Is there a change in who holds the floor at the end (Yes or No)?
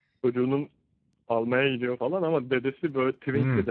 Yes